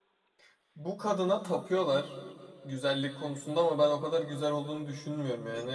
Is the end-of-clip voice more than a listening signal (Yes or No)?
No